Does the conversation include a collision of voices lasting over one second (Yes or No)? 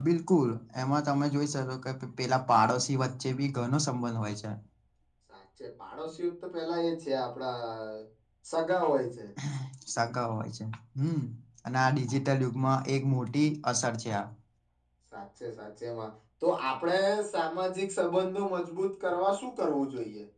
No